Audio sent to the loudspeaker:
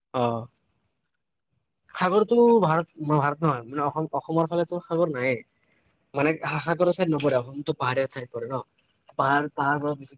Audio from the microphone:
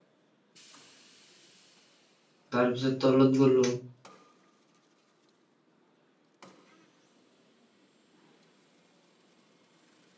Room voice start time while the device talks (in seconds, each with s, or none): 2.5 s